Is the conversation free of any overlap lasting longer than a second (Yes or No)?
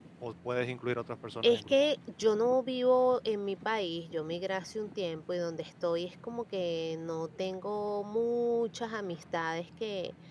Yes